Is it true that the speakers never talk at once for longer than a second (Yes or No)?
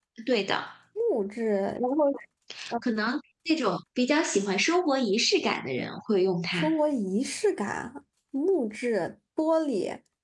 Yes